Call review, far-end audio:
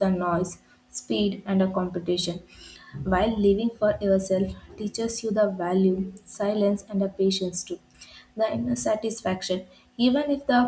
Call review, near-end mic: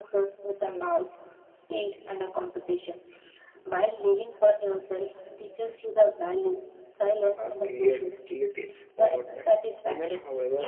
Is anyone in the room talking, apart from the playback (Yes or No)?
Yes